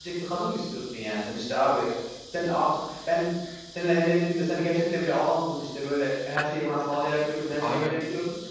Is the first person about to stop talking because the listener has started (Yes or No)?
No